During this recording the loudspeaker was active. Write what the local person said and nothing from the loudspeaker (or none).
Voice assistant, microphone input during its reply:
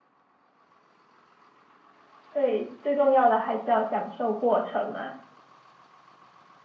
对，最重要的还是要享受过程嘛。